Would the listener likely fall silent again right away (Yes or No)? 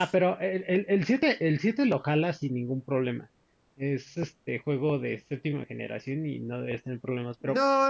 No